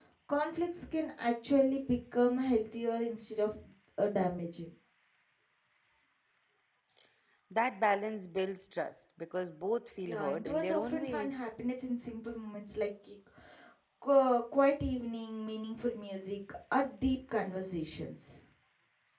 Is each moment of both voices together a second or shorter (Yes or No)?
No